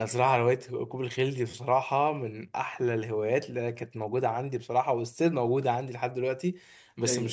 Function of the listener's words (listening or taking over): listening